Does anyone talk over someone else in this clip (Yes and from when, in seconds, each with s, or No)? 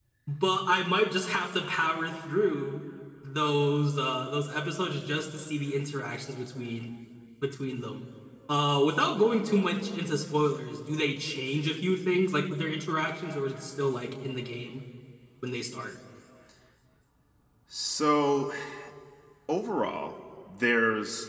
No